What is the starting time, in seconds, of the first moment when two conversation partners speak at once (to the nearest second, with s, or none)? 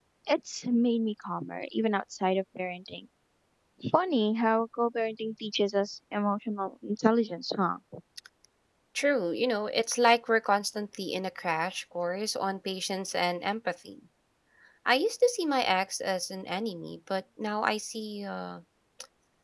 none